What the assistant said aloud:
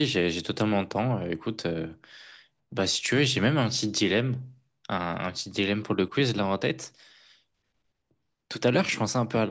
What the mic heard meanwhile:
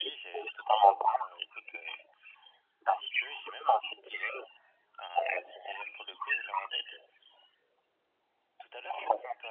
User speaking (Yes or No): No